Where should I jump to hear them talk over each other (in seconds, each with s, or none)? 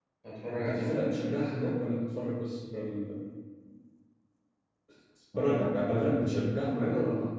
0.5 s